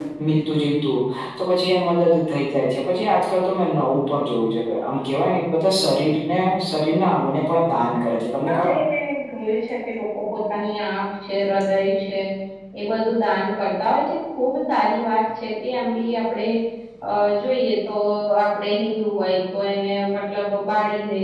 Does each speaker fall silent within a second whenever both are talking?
Yes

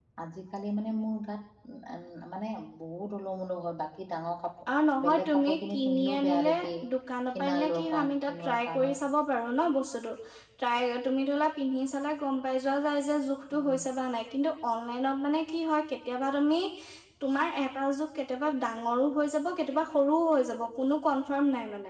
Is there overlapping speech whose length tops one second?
Yes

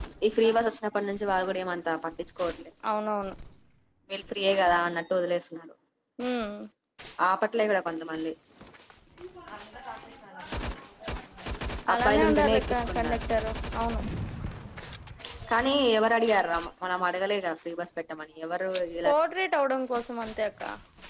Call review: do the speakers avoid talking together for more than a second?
No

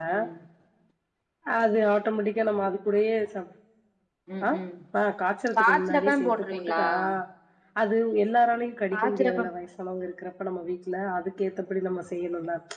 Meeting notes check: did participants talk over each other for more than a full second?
Yes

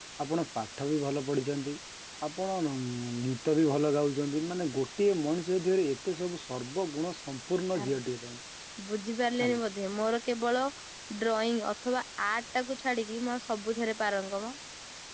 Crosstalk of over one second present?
No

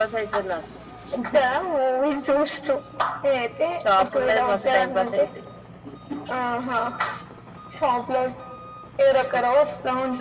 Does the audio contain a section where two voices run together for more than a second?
Yes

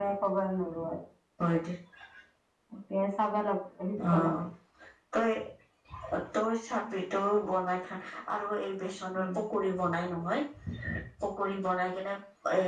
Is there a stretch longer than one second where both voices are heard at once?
No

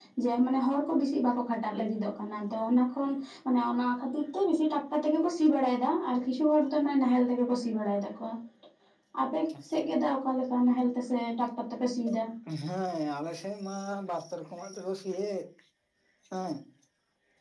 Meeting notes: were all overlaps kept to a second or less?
Yes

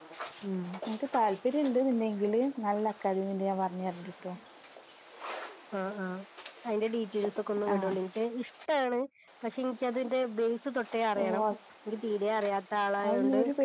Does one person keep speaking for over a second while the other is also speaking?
No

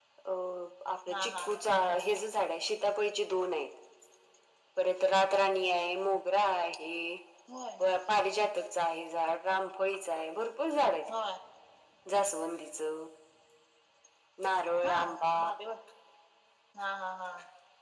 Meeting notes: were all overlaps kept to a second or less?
Yes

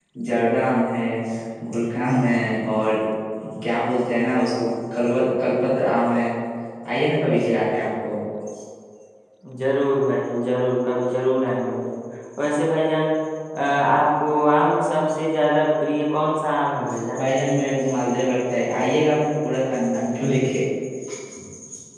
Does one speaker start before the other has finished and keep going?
No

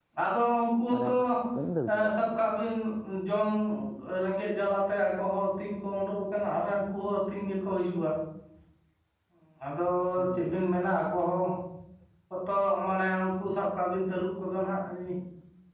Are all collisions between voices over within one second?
Yes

